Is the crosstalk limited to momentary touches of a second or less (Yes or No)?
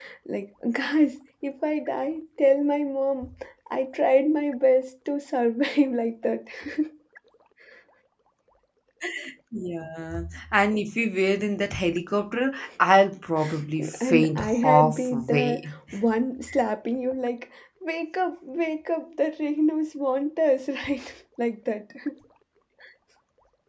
No